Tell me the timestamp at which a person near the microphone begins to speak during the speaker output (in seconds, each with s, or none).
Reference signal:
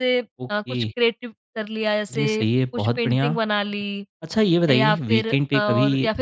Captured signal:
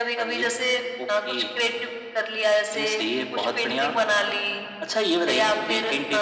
none